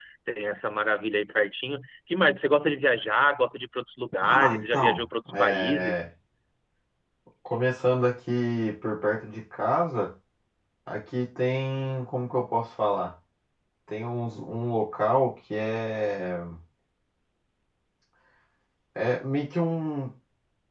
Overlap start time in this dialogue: 4.2 s

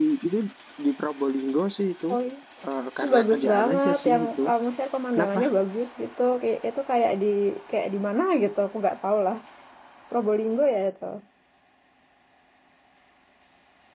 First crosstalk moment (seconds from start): 3.0 s

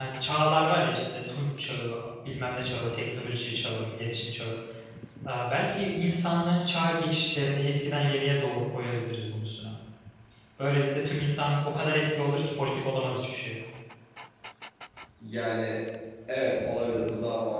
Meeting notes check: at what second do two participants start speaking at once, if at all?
none

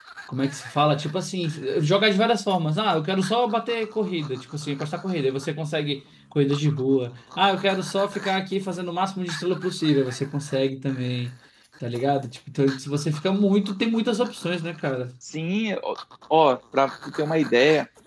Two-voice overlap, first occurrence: none

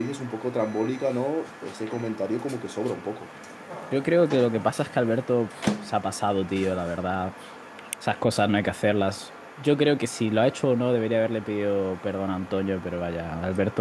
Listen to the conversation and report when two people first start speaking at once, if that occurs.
none

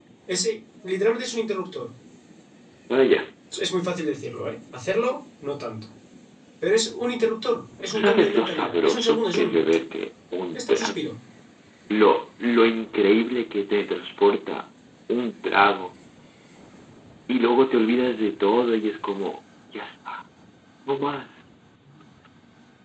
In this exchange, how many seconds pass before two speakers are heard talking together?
7.9 s

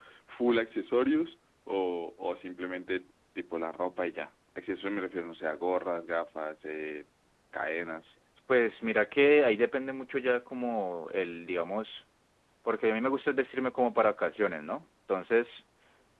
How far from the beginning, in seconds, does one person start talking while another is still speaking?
none

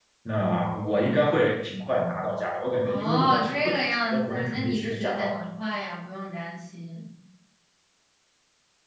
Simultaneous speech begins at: 2.8 s

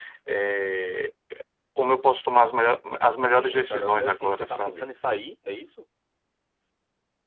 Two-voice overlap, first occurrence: 3.3 s

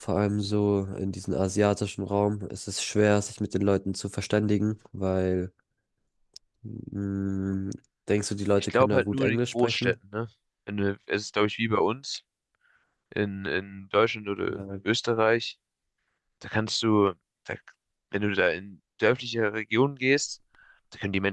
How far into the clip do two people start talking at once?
8.6 s

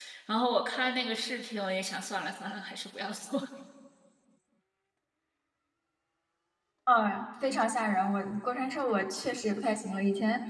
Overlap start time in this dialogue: none

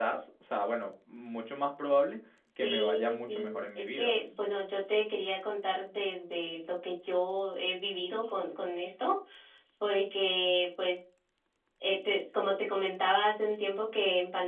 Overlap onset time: 2.6 s

